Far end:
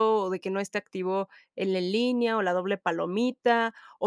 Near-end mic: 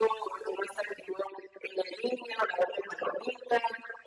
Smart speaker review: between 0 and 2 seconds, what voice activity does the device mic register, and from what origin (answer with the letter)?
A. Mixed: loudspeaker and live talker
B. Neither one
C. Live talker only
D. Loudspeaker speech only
D